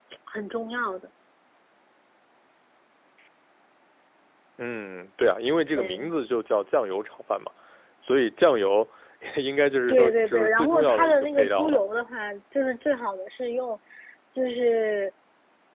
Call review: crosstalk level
present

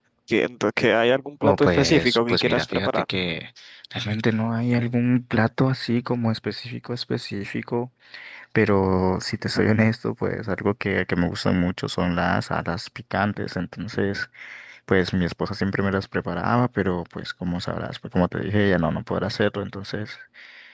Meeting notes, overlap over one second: present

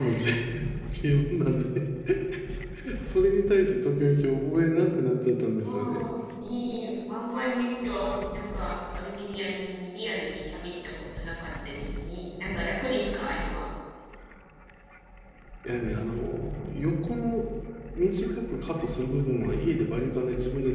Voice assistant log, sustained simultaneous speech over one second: none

